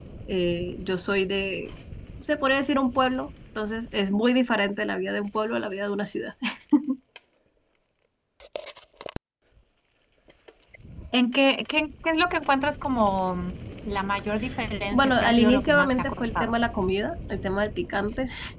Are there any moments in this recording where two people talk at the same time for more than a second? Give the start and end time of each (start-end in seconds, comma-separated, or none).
14.9-16.5